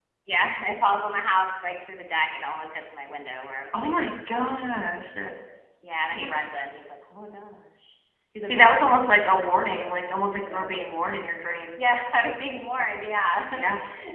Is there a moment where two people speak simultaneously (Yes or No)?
Yes